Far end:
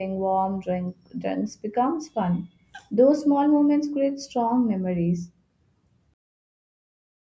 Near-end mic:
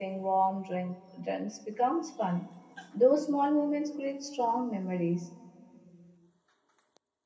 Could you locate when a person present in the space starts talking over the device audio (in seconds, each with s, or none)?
none